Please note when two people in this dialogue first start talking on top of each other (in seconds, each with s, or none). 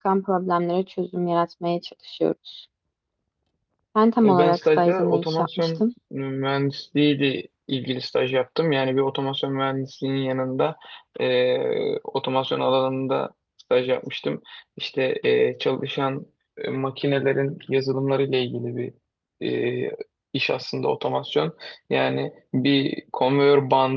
4.3 s